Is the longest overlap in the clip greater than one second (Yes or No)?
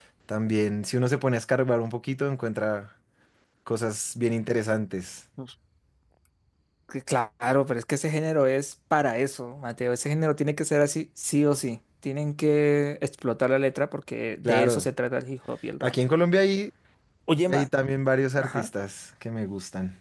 No